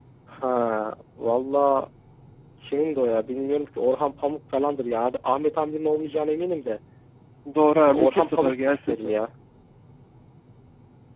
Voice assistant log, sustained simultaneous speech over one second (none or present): present